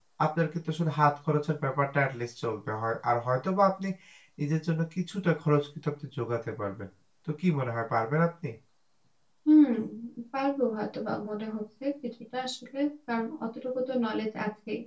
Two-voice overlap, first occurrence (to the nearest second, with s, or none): none